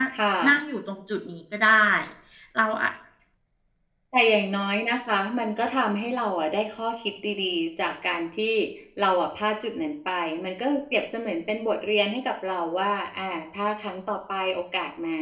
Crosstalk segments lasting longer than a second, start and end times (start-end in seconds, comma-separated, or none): none